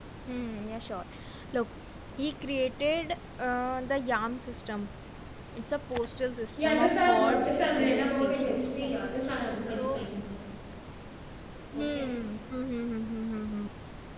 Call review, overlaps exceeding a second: present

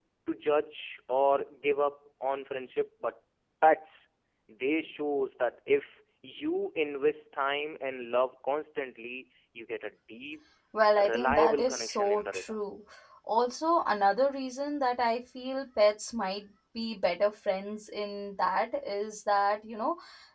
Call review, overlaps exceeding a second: present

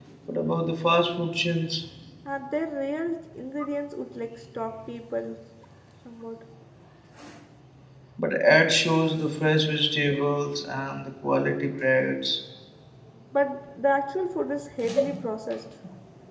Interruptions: none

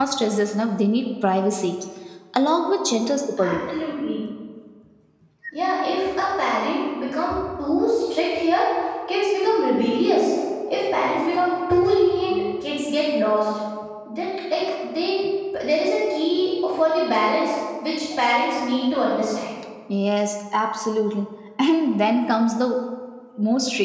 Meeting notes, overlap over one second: none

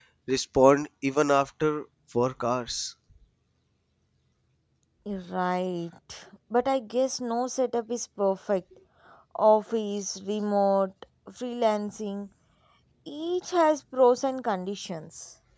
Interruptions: none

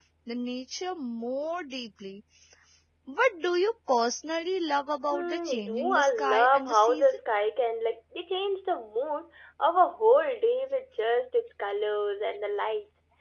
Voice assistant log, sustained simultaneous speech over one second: present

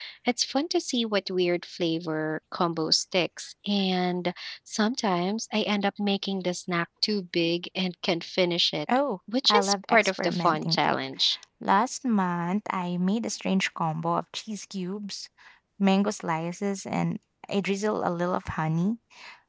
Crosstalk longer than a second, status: present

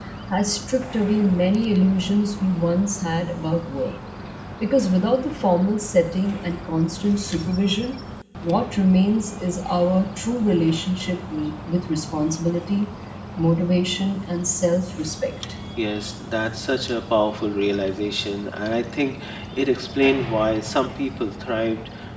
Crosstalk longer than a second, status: none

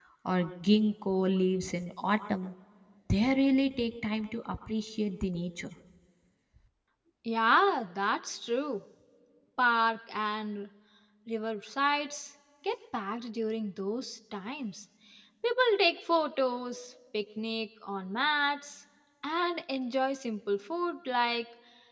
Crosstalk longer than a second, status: none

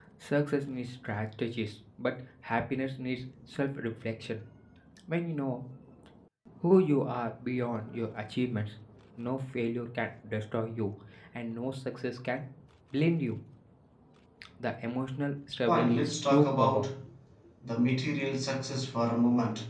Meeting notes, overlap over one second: present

